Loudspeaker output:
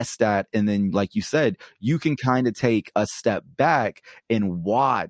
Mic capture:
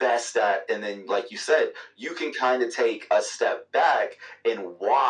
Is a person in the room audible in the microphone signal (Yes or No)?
No